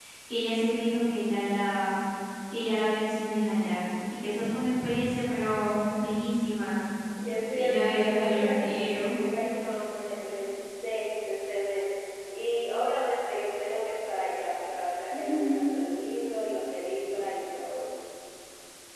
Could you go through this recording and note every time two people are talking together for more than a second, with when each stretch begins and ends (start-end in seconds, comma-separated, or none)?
7.5-9.2